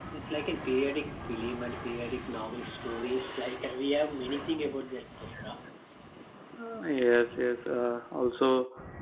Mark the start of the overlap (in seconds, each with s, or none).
none